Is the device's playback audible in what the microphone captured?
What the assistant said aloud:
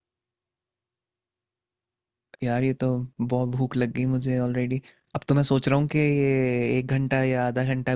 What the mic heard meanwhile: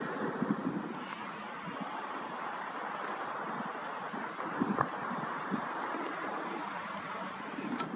No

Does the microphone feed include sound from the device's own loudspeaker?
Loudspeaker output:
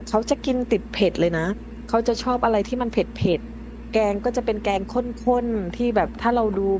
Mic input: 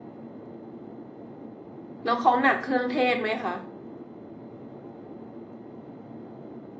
No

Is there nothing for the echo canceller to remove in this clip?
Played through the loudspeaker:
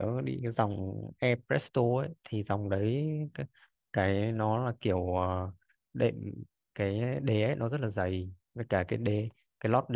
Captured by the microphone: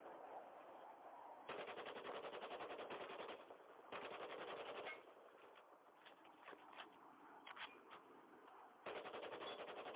Yes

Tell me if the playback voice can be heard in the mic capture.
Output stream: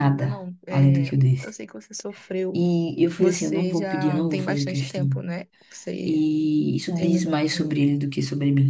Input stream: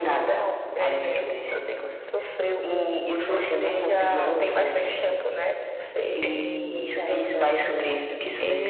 Yes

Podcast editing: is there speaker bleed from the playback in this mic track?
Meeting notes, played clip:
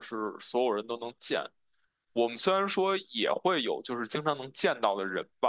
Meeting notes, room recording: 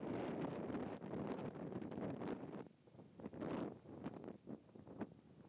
No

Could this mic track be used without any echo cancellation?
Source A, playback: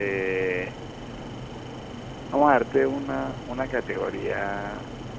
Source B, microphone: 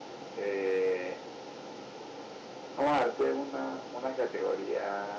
No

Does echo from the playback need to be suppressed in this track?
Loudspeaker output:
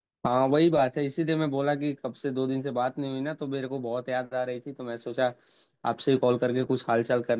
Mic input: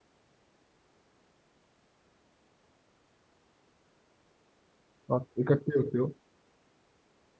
No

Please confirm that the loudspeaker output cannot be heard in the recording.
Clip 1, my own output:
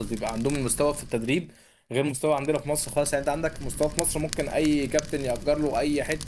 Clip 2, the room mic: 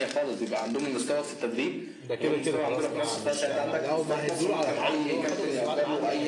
No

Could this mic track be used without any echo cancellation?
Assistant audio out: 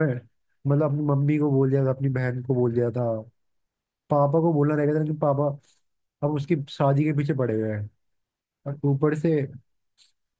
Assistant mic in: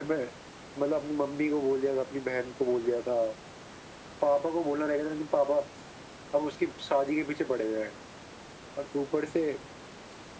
No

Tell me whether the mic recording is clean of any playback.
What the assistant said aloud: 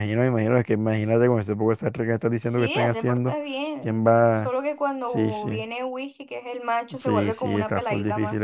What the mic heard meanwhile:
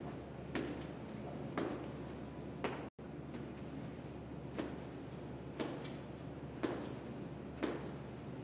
Yes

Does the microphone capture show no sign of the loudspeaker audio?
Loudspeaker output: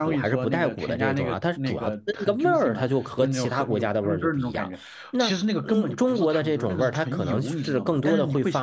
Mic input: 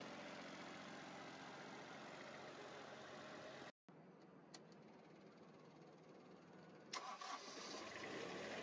Yes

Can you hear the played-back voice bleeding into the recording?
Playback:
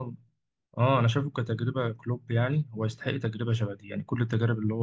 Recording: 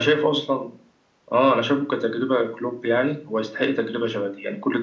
Yes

